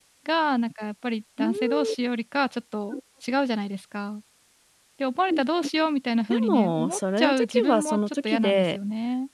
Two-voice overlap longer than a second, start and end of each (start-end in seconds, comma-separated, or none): 6.3-8.8